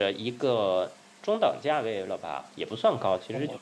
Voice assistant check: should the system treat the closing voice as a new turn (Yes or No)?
Yes